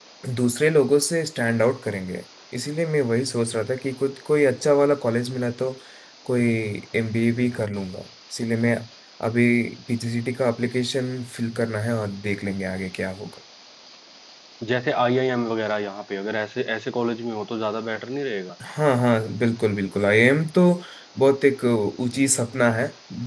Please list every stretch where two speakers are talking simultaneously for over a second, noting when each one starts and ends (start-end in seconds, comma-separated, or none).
none